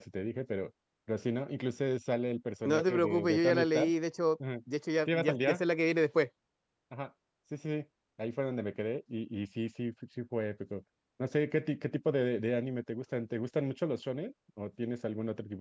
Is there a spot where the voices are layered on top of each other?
Yes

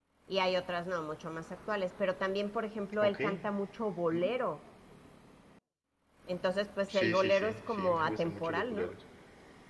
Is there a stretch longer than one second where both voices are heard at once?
Yes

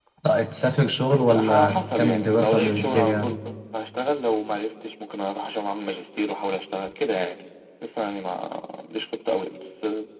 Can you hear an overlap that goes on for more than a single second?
Yes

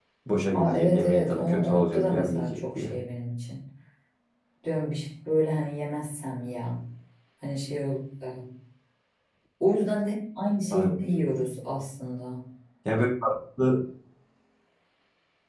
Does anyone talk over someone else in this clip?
Yes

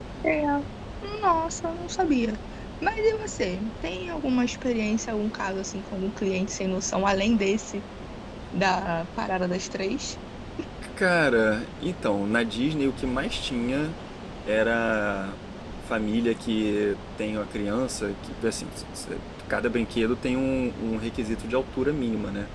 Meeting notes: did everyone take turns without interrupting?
Yes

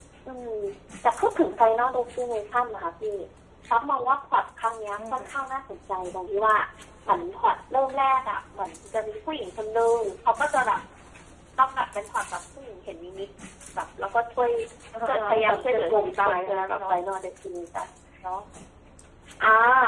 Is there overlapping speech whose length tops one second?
Yes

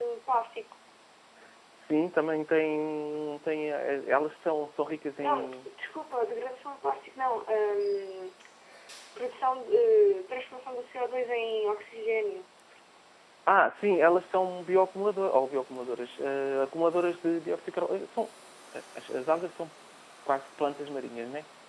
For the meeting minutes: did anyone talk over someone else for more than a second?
No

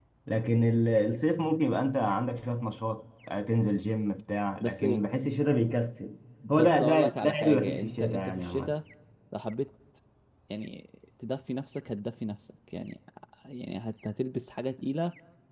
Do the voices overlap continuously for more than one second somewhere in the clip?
Yes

